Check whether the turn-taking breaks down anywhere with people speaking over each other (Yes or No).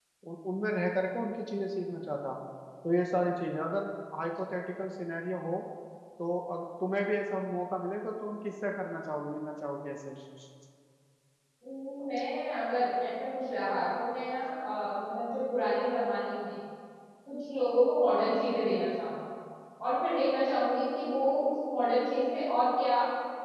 No